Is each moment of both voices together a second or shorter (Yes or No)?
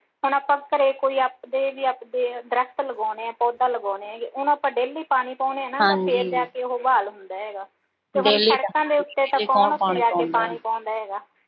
No